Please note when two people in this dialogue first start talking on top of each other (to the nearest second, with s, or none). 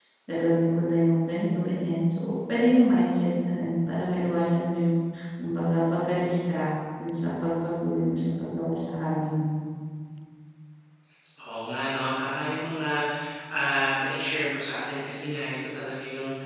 none